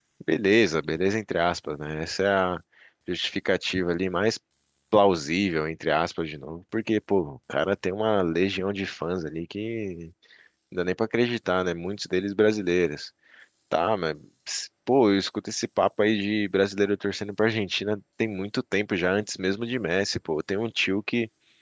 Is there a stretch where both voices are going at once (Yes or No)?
No